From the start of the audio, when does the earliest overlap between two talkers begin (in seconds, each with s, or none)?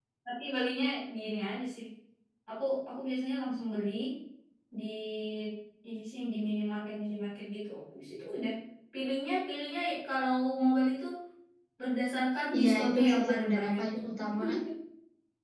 12.5 s